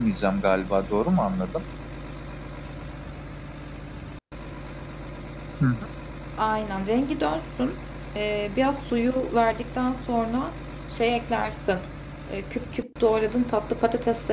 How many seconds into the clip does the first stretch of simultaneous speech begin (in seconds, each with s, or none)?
none